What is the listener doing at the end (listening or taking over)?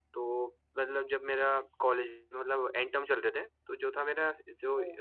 listening